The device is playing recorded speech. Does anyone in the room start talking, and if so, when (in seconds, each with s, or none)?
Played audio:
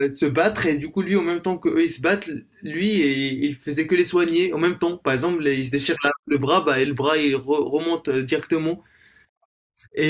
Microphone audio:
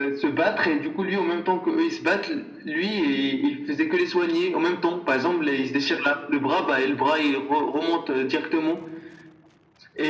none